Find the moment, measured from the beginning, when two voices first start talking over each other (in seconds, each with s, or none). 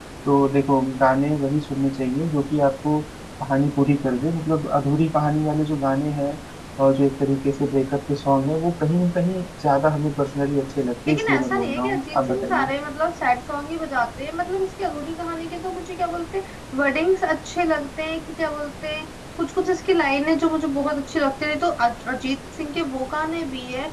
11.1 s